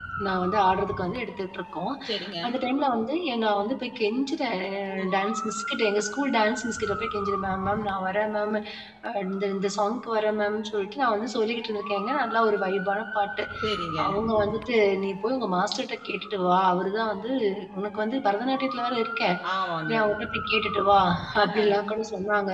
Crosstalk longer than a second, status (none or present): none